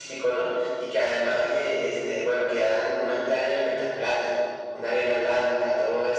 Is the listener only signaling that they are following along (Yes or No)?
Yes